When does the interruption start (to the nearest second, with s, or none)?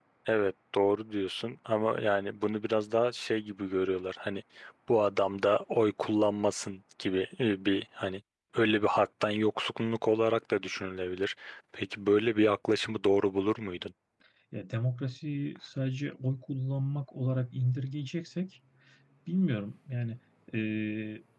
none